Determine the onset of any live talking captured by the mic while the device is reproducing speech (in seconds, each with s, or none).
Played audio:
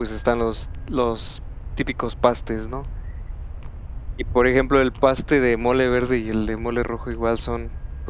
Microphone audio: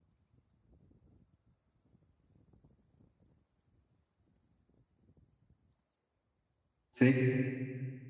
6.9 s